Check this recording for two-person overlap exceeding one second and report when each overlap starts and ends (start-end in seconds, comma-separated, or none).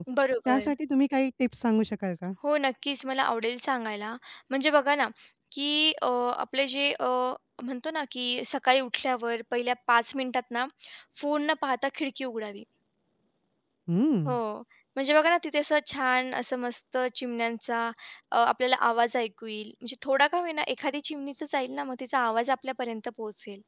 none